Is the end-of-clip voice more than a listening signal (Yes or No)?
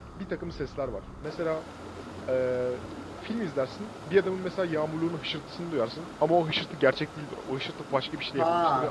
Yes